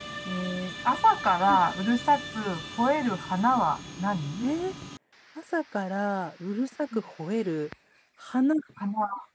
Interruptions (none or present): none